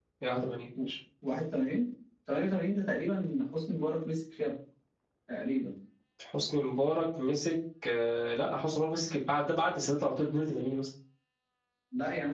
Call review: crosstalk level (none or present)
none